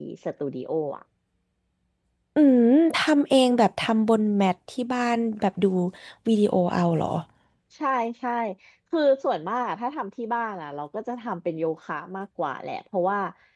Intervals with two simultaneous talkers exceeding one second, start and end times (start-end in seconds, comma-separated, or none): none